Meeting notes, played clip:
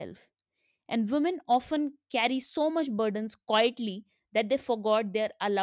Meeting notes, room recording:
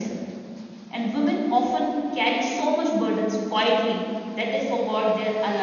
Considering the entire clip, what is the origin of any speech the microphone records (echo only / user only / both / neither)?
echo only